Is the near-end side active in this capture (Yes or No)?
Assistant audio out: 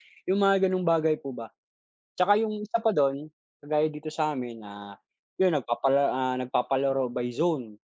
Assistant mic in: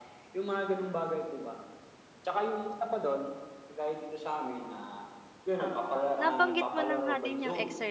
Yes